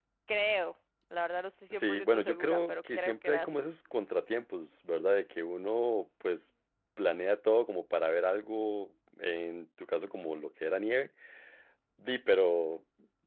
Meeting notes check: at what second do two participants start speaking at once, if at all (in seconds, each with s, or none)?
1.7 s